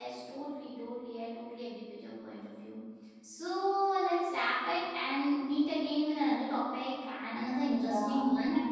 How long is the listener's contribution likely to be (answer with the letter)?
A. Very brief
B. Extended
B